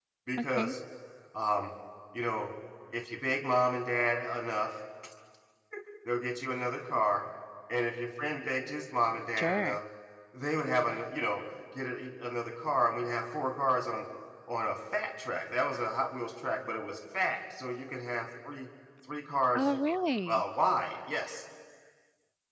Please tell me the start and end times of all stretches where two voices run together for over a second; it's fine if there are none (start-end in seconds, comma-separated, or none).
none